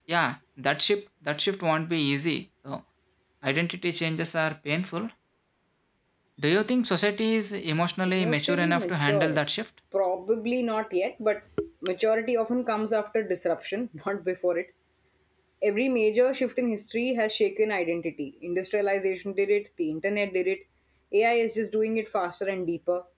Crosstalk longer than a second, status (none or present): present